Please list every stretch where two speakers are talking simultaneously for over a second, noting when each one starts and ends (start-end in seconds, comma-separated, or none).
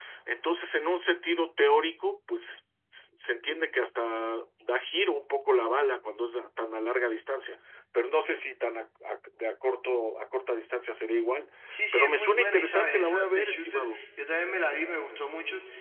11.9-14.0